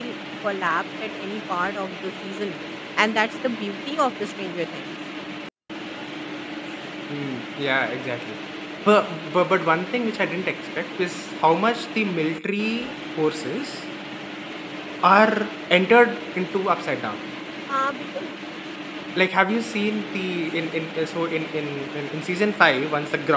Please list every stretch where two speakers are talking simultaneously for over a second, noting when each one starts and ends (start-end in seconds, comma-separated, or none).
none